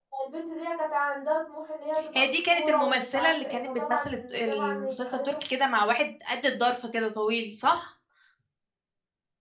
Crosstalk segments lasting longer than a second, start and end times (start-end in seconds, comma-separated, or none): 2.1-5.3